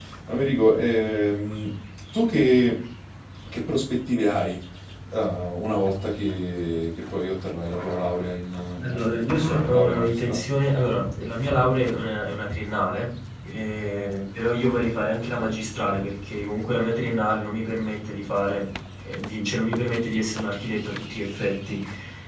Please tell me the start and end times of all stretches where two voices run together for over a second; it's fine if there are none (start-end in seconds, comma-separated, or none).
8.8-10.4